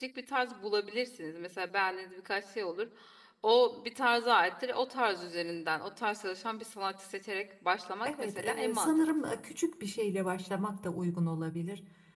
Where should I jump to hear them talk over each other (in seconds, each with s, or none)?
8.0 s